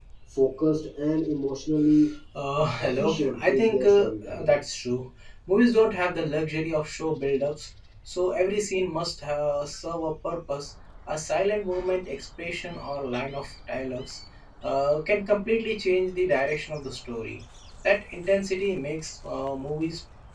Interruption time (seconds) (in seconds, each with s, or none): 2.8 s